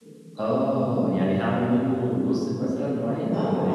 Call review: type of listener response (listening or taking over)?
taking over